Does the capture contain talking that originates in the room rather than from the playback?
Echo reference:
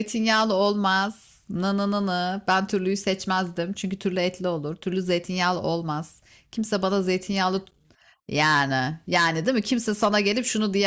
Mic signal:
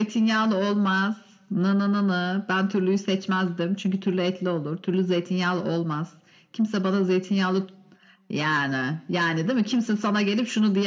No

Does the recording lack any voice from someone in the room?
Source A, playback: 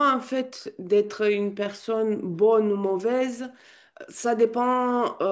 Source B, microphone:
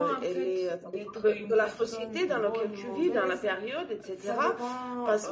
No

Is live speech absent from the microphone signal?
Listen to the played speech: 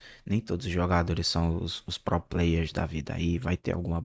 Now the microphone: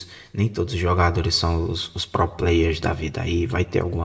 Yes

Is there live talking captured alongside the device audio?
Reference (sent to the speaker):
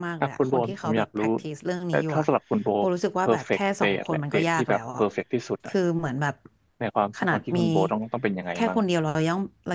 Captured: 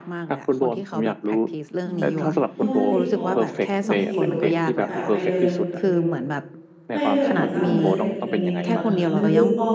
Yes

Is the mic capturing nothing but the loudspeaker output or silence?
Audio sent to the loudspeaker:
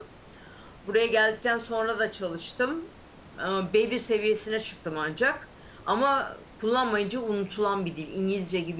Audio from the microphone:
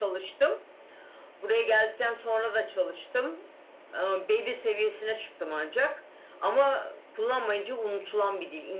Yes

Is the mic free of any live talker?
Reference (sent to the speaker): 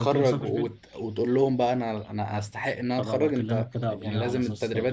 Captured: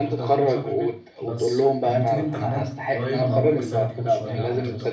No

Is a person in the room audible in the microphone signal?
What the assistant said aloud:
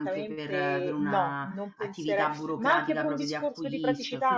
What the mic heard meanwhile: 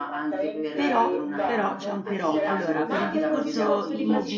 Yes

